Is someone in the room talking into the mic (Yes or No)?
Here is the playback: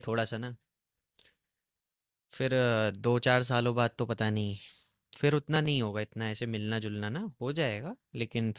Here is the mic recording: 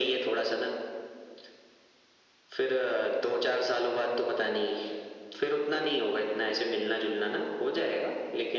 No